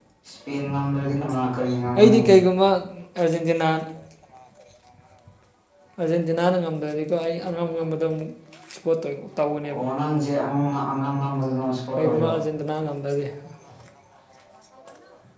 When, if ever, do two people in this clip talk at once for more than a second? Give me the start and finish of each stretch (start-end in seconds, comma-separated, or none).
none